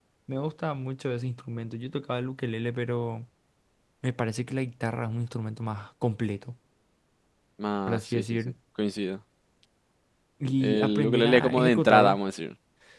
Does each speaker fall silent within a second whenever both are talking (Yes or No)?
No